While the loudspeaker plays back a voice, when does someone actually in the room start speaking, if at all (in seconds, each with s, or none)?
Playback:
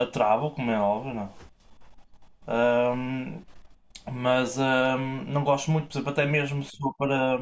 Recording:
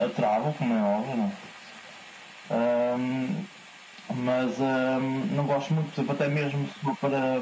none